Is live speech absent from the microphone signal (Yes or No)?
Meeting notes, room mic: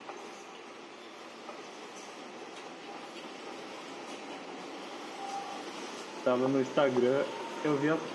No